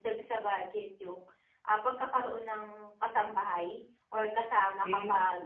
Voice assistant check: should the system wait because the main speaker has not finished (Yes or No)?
Yes